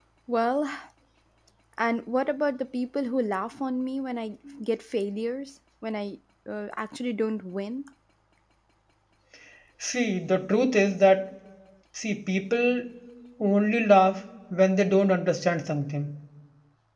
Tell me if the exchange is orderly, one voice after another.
Yes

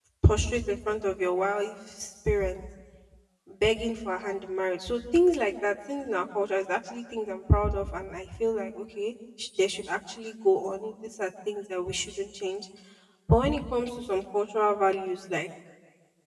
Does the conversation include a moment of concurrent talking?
No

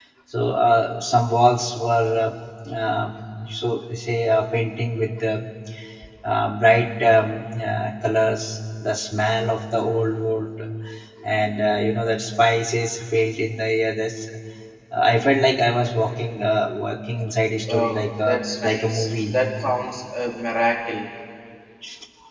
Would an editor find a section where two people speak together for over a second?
Yes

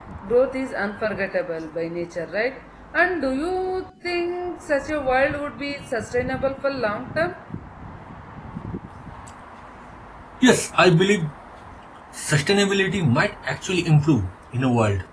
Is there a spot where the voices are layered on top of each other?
No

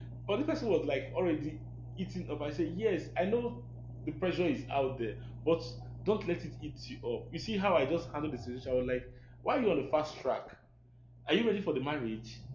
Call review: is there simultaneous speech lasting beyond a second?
No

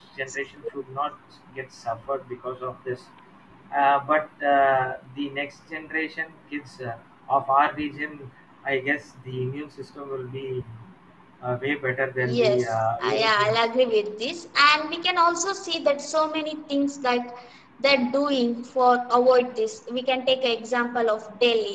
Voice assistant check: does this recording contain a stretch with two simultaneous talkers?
Yes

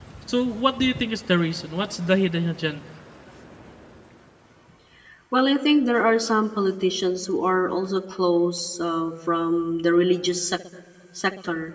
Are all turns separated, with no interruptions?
Yes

